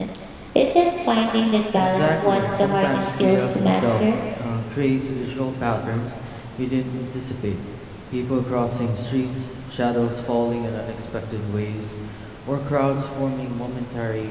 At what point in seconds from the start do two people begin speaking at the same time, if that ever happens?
1.8 s

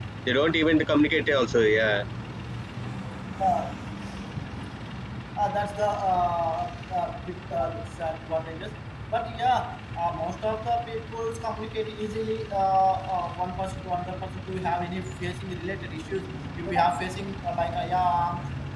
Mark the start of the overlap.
none

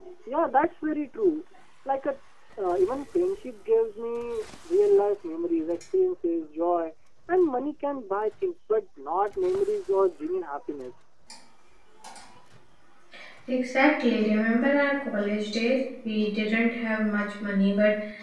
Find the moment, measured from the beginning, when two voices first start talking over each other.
none

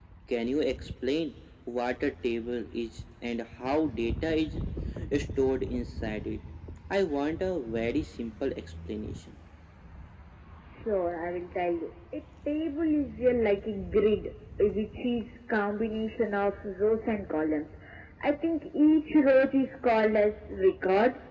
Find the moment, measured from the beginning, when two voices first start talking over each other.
none

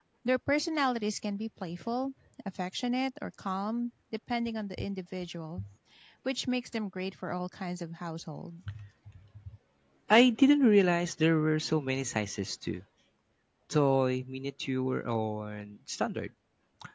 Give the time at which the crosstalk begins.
none

